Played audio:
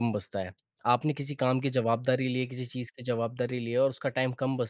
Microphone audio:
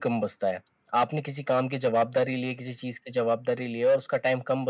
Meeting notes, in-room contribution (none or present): none